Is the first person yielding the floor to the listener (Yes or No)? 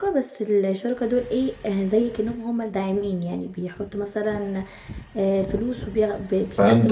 Yes